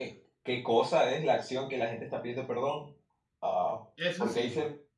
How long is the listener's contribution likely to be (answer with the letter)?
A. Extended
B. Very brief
B